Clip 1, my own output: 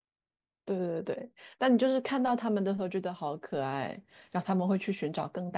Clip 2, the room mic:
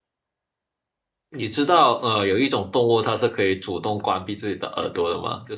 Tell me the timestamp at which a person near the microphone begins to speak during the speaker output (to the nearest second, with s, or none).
1 s